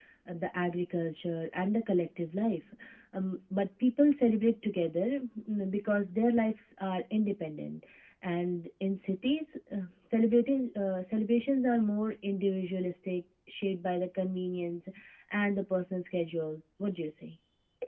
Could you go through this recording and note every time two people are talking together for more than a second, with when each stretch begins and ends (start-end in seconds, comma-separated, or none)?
none